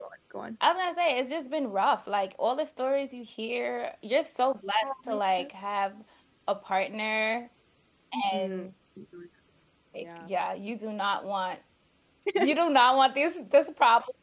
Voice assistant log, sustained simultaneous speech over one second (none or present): none